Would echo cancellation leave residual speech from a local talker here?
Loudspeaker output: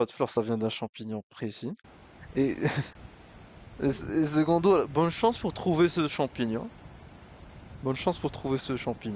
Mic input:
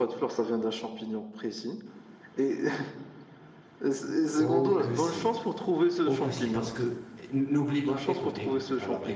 Yes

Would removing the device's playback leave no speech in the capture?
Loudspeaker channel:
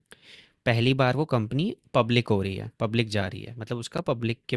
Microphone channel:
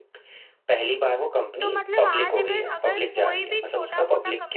No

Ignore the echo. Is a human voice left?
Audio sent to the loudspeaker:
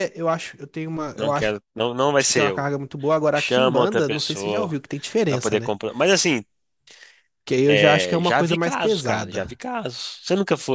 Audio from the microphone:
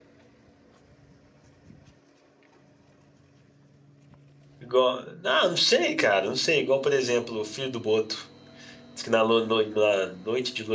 Yes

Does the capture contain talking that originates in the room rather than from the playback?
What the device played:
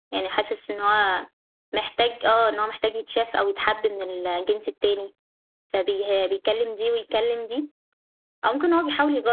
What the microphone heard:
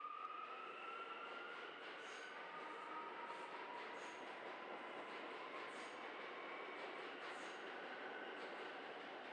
No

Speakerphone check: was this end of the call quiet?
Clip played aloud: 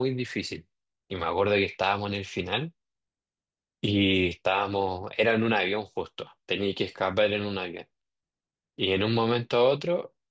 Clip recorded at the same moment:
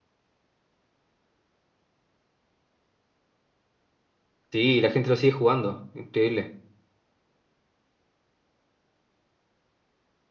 No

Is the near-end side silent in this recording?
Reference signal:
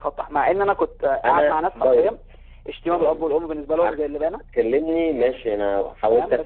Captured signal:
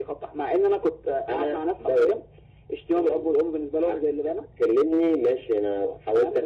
Yes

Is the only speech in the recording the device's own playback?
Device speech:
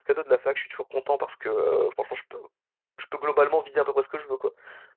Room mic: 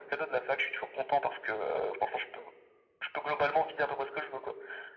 Yes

